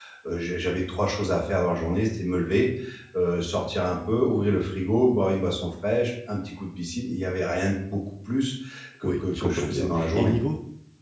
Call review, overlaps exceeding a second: present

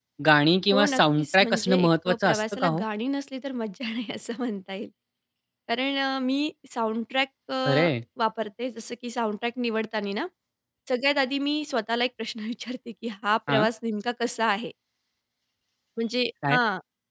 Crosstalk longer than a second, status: present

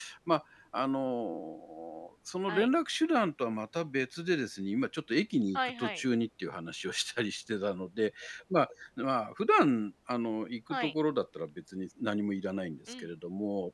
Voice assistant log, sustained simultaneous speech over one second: none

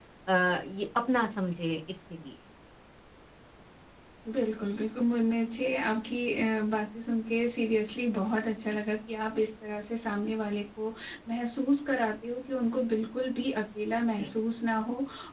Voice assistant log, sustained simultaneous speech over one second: none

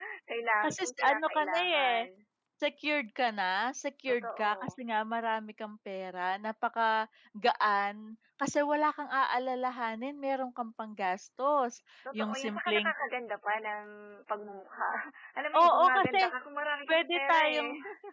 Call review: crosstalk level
present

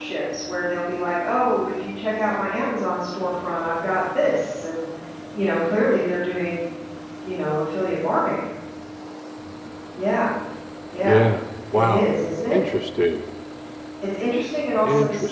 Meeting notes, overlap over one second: none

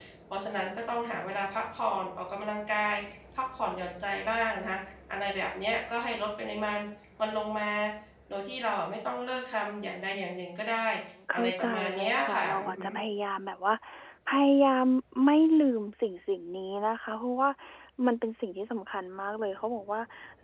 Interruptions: present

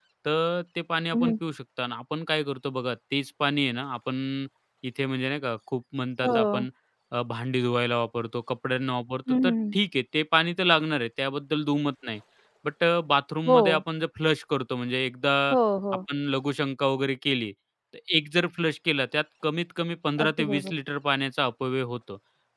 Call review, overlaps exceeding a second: none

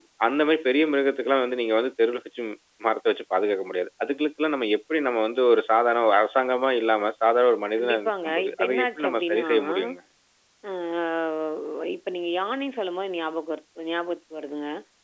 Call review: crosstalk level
present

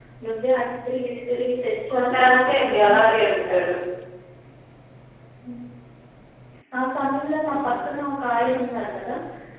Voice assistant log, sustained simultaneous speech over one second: present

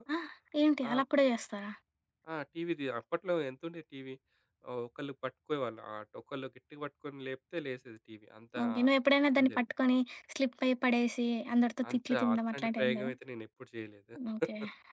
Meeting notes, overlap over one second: present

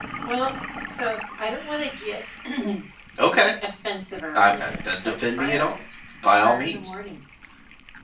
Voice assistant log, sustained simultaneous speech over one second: present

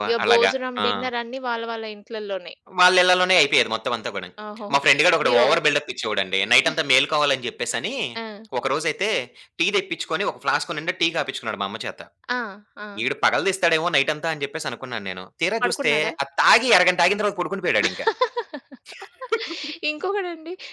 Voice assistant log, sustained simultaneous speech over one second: none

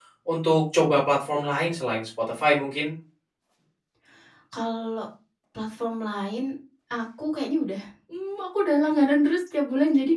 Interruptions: none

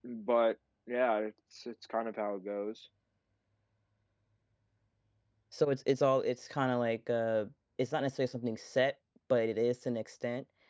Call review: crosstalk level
none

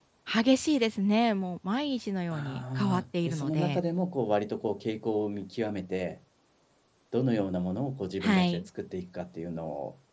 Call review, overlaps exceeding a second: present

